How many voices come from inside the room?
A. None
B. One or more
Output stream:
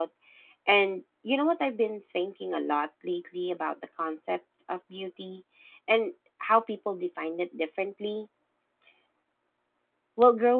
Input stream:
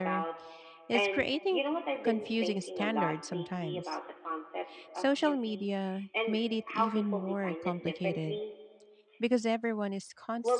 B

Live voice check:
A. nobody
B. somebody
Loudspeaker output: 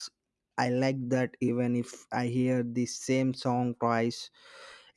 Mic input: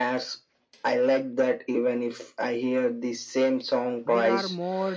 B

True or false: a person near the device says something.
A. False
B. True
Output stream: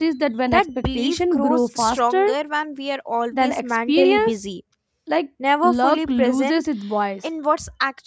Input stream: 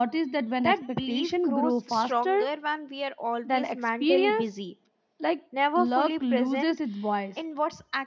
A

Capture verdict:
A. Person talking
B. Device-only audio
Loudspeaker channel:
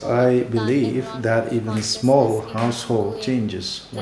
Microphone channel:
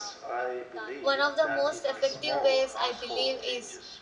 A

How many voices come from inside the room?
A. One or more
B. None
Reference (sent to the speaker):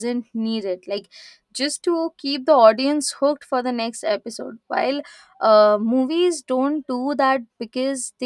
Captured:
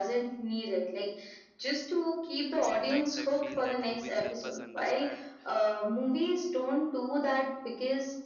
A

